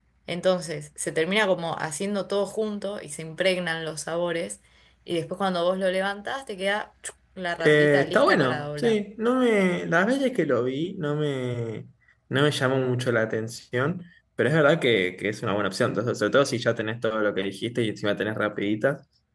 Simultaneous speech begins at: 7.6 s

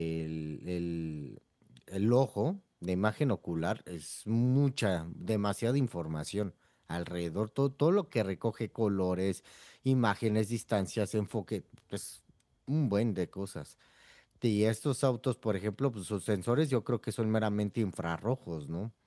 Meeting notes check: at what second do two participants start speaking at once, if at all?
none

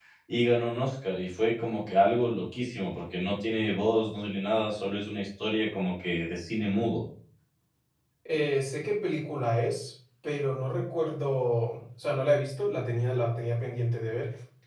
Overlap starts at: none

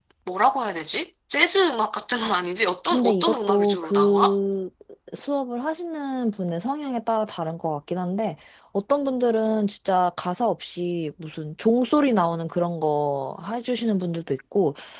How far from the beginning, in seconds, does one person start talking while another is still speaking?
2.9 s

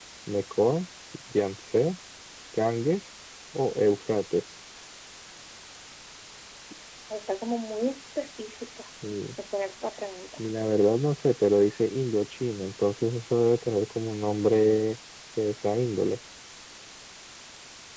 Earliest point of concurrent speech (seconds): none

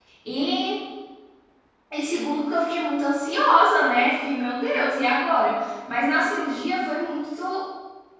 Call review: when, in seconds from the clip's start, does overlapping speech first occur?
none

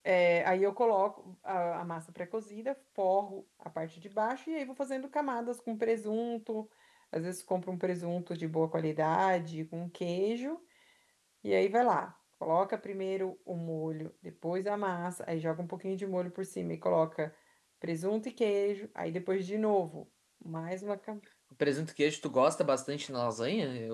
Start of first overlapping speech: none

